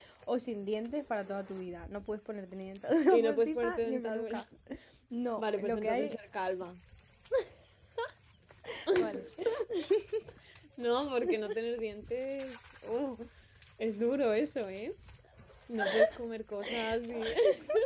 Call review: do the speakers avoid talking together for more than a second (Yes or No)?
No